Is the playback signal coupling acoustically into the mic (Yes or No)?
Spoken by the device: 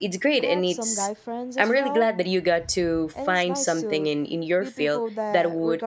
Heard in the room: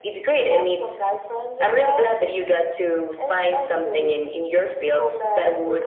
Yes